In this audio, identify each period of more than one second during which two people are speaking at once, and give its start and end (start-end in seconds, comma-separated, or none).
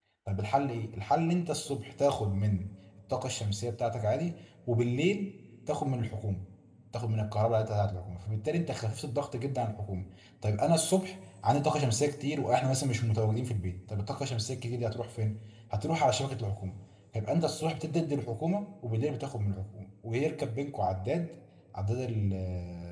none